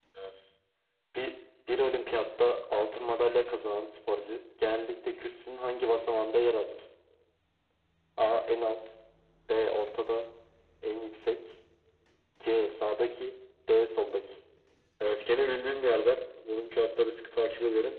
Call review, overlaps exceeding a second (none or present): none